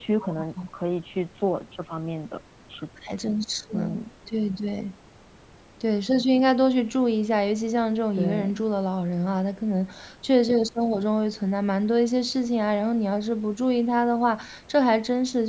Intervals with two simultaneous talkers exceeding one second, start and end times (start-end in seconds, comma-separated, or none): none